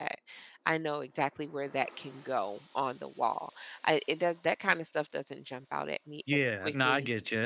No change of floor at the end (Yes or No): No